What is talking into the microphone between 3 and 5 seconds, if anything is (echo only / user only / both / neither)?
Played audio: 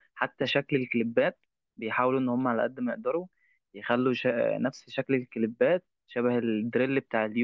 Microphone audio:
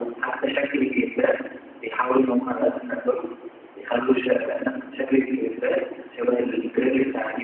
echo only